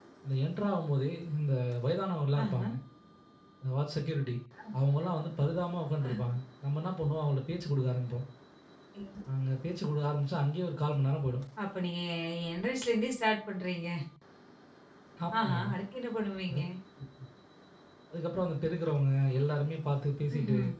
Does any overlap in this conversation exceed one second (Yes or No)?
No